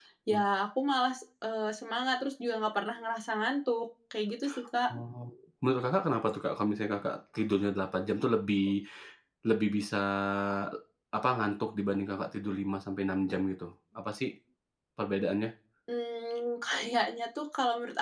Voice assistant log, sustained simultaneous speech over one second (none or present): none